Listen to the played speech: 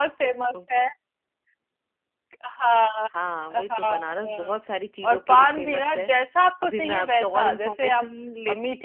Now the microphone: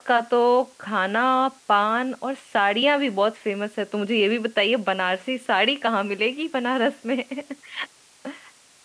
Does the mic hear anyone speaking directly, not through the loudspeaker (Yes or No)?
Yes